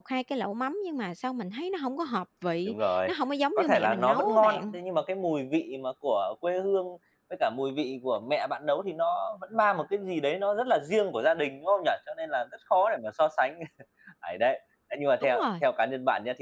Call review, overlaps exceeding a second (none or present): present